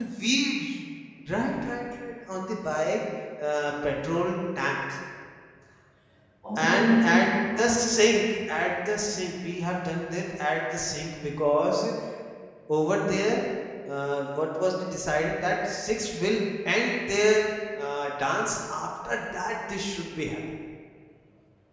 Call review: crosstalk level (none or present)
present